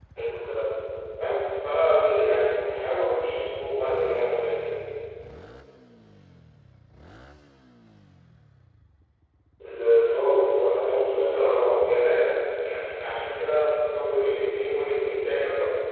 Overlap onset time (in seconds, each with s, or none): 10.1 s